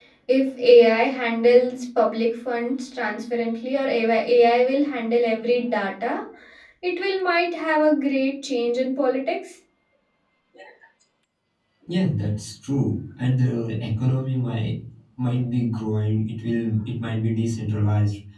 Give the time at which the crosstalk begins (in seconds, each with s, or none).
none